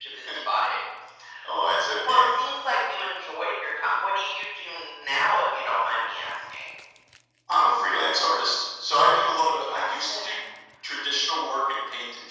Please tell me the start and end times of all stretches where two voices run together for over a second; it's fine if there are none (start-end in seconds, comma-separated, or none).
9.0-10.3